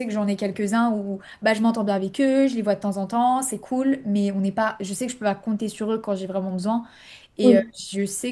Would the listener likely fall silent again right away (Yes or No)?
Yes